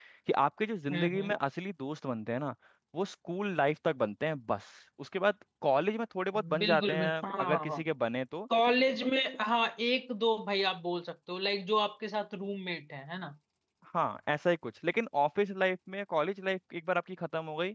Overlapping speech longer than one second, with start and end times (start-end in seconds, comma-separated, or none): 6.6-7.8